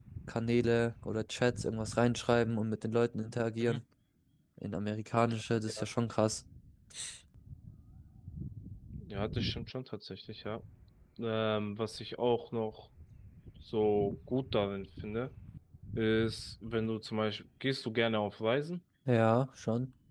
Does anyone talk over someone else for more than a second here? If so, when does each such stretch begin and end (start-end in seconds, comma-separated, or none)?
none